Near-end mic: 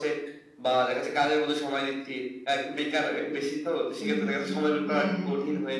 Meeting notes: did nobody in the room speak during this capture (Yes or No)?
No